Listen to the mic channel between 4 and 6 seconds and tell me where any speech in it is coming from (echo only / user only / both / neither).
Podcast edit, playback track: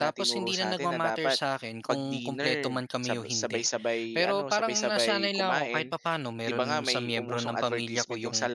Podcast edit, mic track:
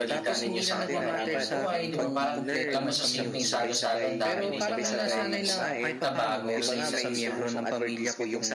both